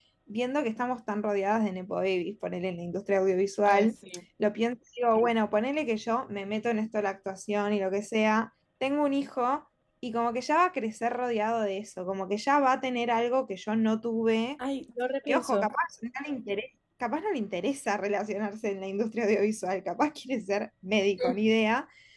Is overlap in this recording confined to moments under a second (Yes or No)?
Yes